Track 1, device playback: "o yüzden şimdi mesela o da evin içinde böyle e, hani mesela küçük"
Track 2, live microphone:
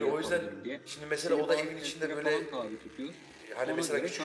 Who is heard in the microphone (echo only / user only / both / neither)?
both